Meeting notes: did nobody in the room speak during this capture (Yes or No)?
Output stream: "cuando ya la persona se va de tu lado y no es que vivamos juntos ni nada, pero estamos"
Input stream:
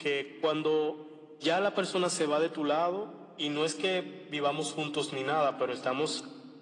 Yes